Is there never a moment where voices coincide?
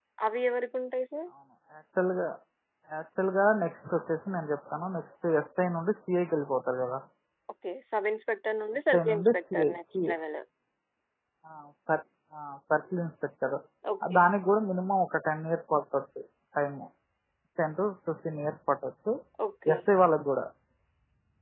No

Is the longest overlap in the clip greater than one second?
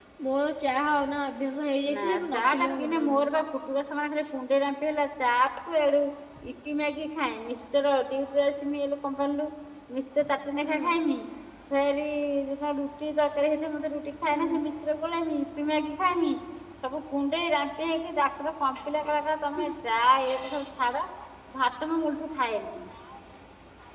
Yes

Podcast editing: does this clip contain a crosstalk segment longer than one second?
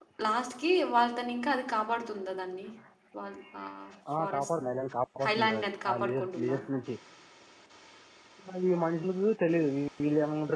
Yes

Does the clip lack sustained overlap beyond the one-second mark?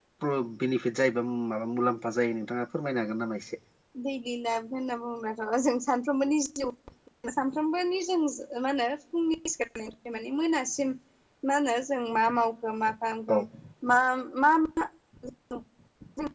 Yes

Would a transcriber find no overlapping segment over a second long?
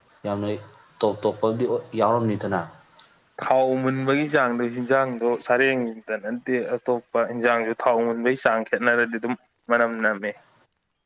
Yes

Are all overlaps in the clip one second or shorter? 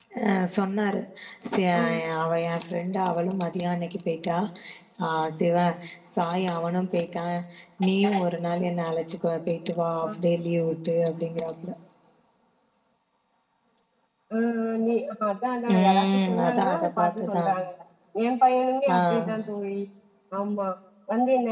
No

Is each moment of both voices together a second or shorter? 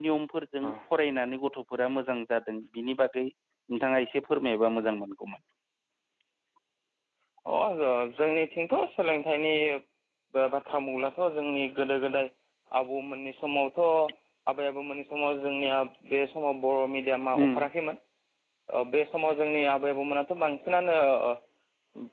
Yes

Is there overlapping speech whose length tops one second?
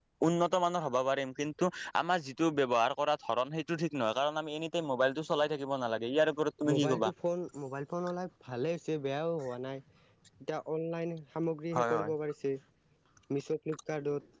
No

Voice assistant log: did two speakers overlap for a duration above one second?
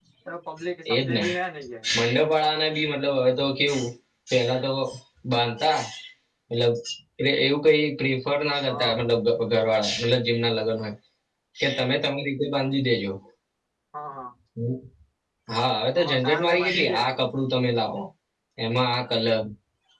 Yes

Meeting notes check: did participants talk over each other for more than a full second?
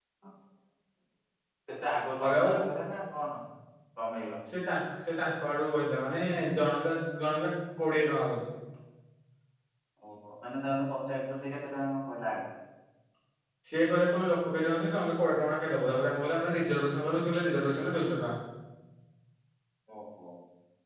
No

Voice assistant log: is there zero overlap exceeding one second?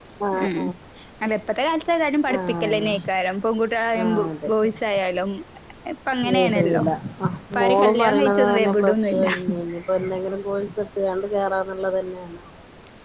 No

